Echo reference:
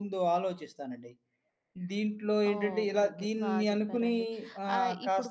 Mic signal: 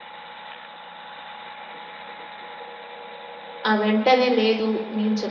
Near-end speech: present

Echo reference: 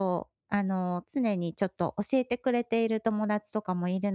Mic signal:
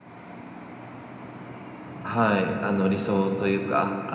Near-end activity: present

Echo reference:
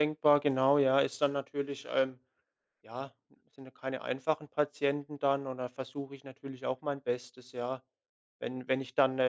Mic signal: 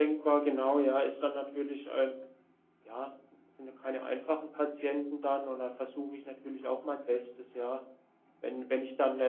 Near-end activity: none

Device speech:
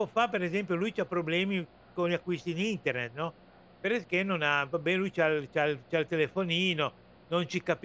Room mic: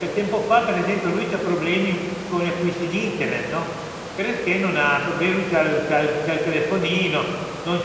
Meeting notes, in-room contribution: none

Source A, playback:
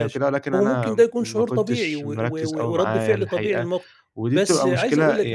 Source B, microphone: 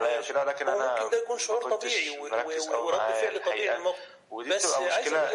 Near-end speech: none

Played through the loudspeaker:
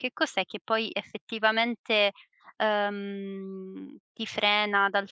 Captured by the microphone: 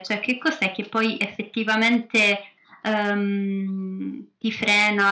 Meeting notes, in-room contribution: none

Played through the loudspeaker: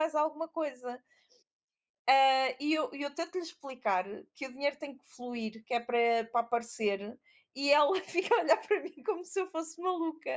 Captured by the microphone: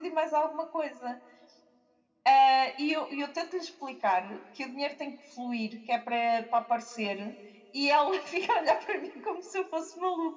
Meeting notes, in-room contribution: none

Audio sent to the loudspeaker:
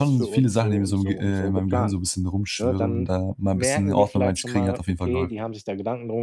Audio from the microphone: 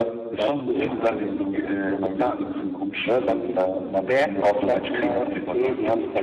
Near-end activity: present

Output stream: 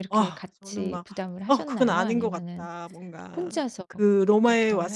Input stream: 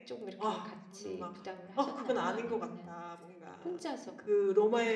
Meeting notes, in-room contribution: none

